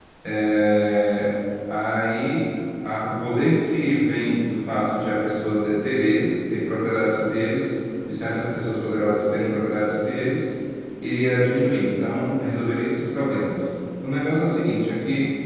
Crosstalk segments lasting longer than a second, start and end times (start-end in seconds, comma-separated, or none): none